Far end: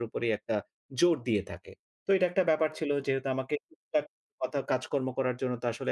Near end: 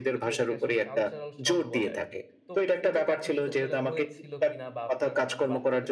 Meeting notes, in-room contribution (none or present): present